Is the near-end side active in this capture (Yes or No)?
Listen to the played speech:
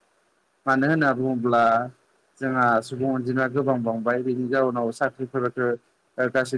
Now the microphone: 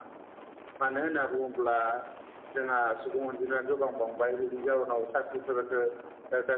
No